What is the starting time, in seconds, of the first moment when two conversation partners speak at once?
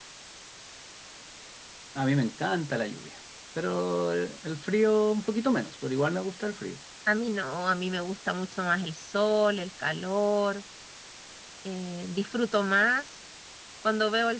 none

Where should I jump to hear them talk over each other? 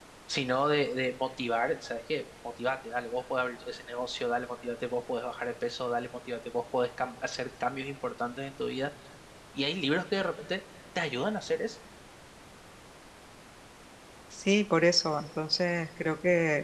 none

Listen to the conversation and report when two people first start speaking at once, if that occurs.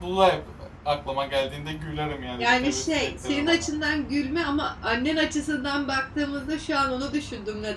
2.4 s

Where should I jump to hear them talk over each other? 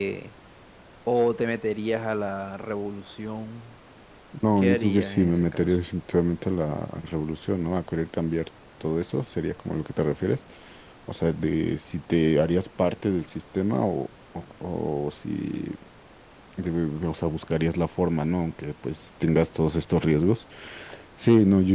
4.6 s

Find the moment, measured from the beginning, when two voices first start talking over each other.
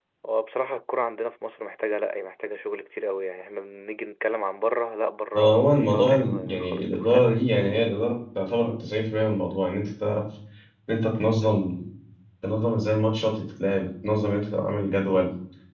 5.3 s

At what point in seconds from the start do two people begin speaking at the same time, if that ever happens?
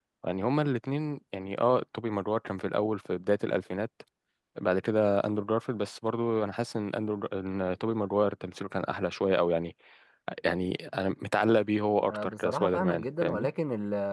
12.1 s

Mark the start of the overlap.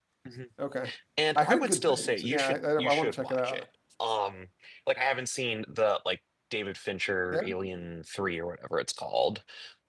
1.4 s

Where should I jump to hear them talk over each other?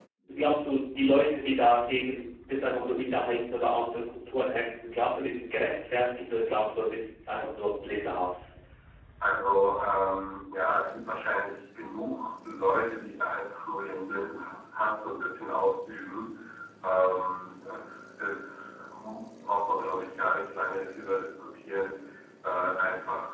none

